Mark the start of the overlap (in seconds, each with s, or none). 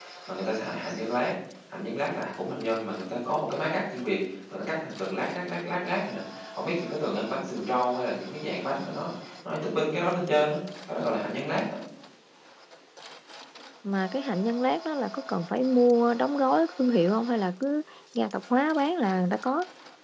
none